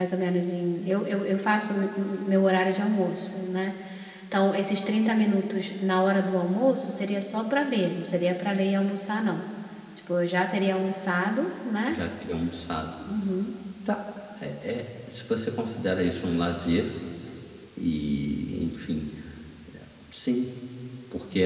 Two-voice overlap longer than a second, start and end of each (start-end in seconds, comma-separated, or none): none